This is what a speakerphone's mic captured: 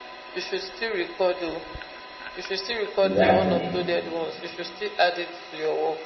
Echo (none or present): present